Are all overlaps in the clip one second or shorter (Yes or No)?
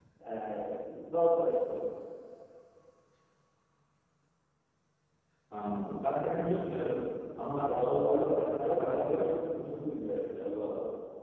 No